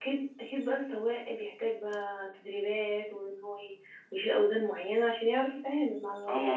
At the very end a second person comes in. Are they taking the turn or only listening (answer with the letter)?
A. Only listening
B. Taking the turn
B